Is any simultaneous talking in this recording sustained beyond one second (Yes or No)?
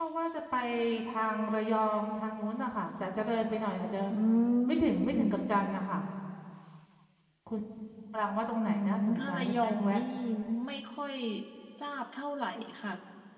Yes